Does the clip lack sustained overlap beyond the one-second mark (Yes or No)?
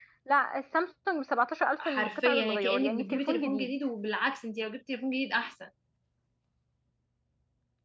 No